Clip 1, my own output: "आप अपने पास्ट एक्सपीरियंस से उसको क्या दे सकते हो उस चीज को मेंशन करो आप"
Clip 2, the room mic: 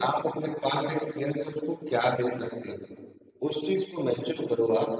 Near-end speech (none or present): none